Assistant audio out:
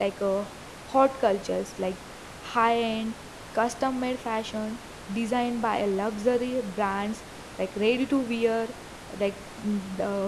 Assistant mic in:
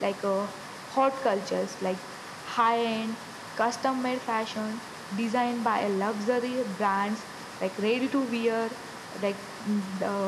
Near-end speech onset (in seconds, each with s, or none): none